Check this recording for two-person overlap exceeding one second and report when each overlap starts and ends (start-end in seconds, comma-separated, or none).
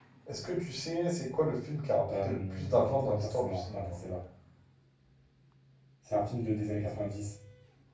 2.1-4.0